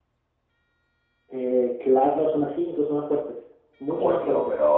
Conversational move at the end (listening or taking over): taking over